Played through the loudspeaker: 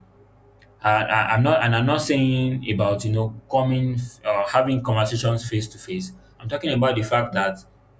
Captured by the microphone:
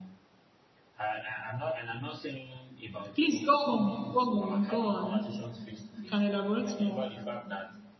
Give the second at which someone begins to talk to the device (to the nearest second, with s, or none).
3 s